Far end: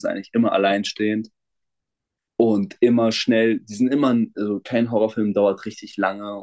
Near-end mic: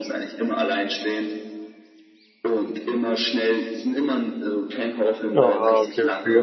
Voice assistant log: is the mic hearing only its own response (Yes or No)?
No